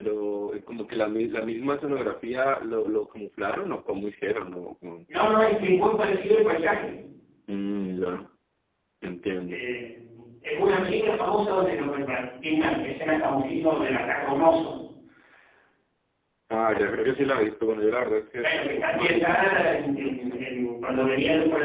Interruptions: present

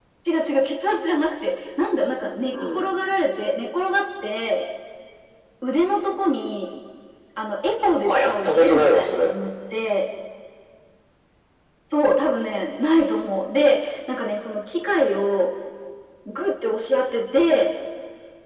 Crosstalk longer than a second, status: present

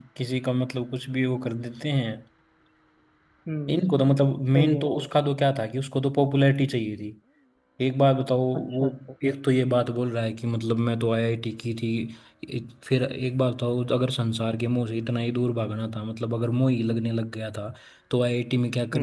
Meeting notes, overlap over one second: none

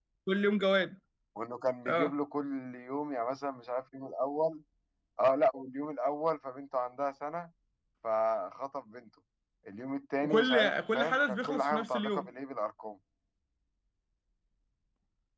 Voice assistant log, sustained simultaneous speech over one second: present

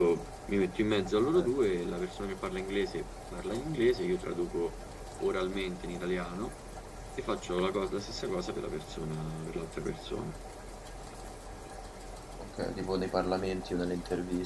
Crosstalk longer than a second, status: none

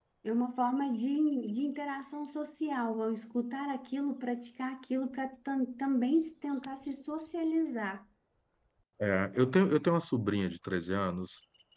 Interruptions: none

